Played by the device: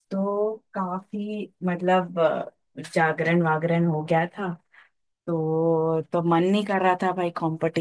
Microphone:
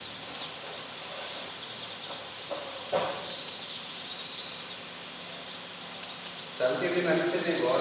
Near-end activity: present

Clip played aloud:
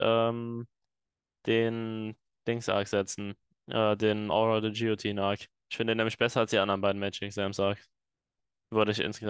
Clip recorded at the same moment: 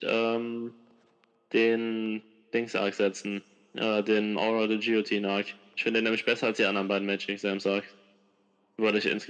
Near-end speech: none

